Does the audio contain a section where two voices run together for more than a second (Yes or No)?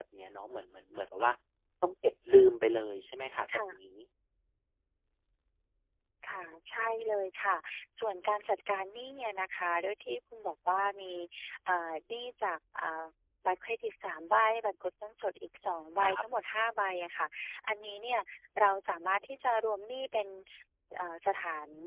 No